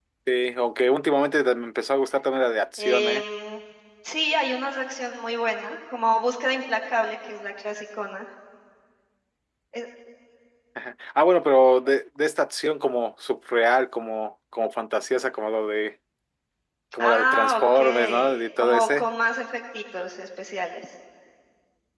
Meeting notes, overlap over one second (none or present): present